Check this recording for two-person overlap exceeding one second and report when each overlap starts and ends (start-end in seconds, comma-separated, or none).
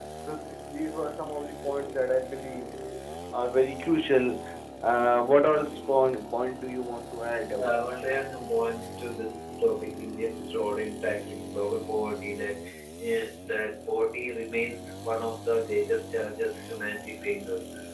none